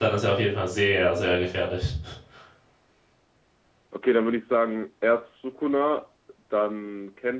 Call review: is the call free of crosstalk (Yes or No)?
Yes